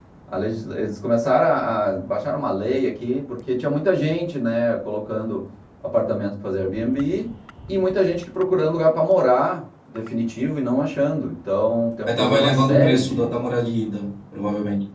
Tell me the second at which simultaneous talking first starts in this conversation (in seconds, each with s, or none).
12.1 s